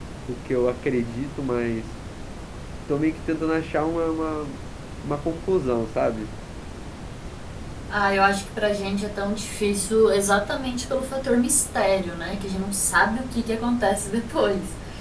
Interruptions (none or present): none